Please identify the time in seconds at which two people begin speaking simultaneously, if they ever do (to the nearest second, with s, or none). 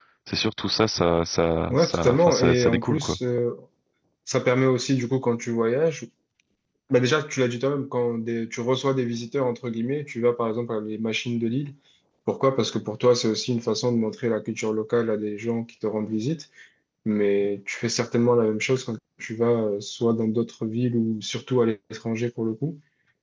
2 s